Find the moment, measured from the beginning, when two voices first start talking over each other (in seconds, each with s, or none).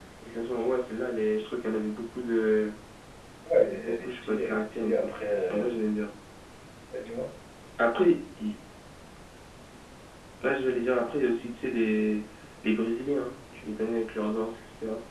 3.8 s